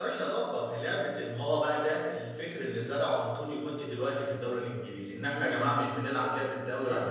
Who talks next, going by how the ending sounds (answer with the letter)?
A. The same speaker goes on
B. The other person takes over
B